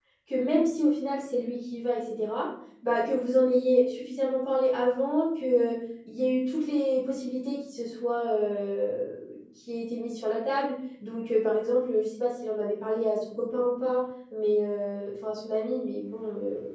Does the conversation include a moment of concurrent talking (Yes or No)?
No